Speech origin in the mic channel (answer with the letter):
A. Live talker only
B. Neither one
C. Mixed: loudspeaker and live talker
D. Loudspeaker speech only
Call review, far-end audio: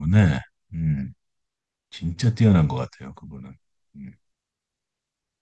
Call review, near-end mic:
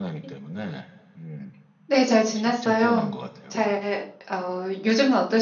C